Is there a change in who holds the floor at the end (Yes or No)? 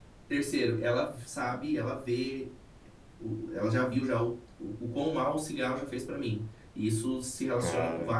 No